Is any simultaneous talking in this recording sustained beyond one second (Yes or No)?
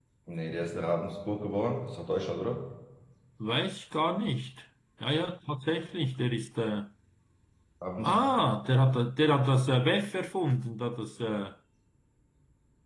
No